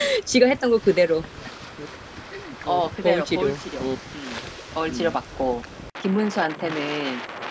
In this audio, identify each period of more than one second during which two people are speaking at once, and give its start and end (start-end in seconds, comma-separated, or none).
2.7-3.9